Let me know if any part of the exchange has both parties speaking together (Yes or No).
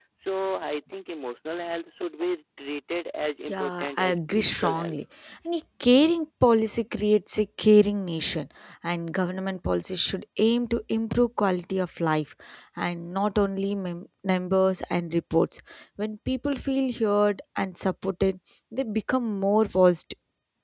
Yes